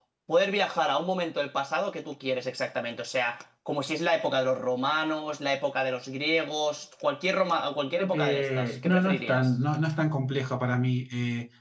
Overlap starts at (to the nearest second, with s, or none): 8 s